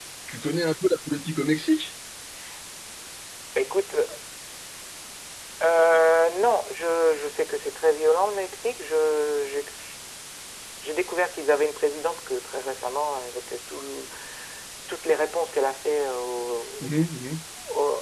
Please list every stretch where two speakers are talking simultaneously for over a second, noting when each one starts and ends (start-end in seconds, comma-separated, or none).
none